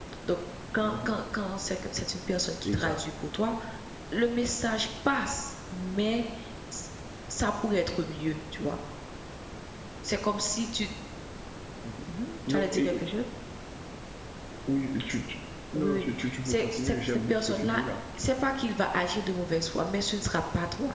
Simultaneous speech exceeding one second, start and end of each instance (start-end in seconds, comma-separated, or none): 16.4-17.8